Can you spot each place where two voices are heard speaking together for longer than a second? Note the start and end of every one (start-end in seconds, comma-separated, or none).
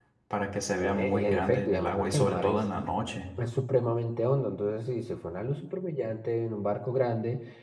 0.8-2.6